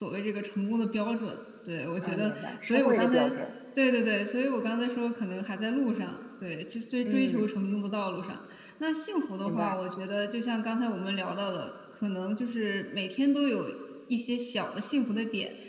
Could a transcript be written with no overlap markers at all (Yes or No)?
No